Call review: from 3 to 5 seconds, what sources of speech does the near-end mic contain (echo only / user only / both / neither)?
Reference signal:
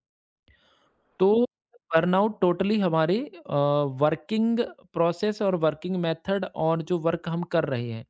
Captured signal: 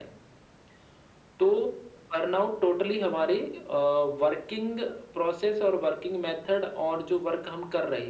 echo only